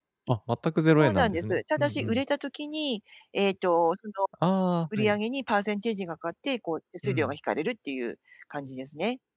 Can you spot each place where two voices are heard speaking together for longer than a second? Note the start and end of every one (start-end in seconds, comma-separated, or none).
1.0-2.2